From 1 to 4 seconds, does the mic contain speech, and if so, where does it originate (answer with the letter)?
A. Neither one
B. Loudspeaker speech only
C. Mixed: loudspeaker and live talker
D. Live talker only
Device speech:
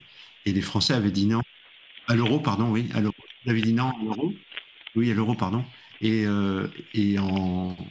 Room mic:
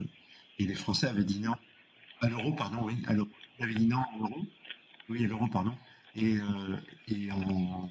B